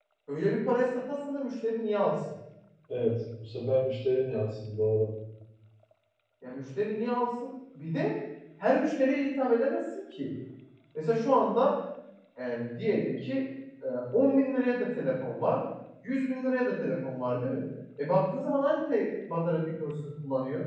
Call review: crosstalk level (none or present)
none